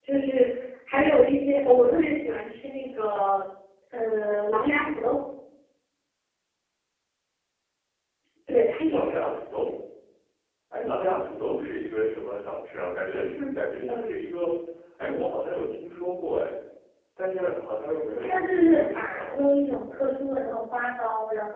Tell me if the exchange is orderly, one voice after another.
No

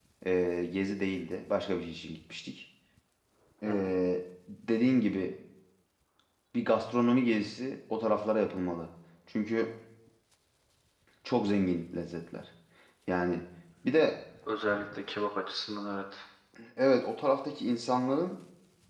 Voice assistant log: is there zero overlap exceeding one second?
Yes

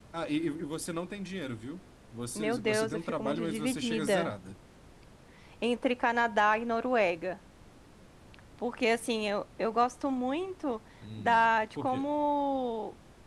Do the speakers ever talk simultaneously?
Yes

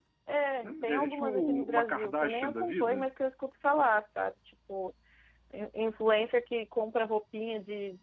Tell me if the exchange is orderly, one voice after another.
No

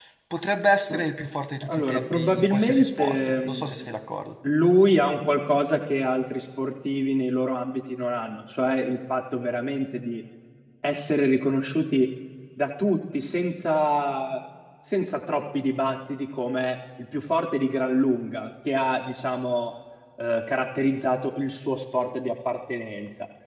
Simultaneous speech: Yes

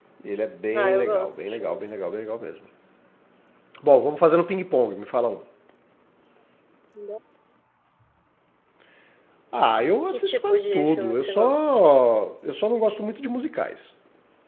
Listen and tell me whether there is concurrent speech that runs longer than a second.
Yes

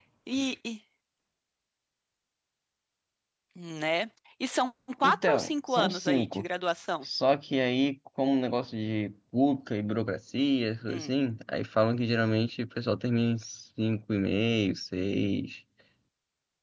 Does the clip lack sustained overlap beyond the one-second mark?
No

